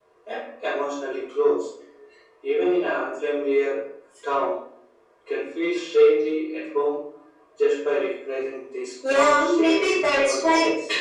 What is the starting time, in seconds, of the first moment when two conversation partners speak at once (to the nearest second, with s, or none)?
9 s